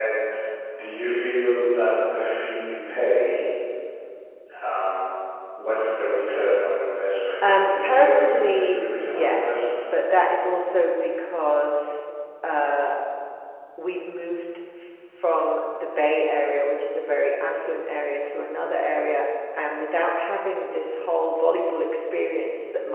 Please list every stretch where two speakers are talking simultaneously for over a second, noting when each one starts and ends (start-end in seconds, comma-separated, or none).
7.5-9.8